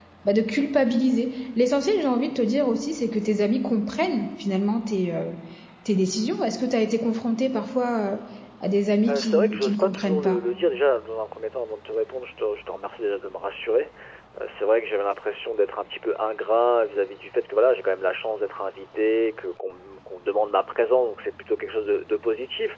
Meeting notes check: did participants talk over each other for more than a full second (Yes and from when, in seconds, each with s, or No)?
Yes, from 9.1 s